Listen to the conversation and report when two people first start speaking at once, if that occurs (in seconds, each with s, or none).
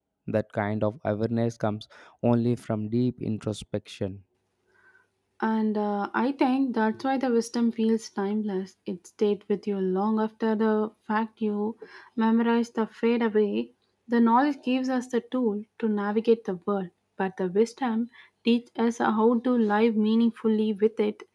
none